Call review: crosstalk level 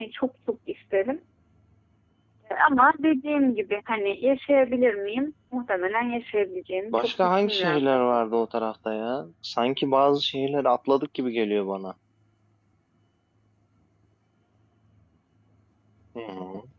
present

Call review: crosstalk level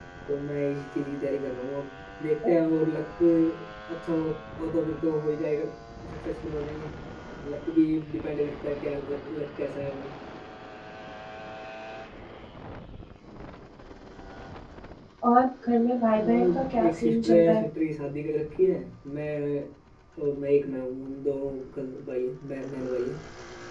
present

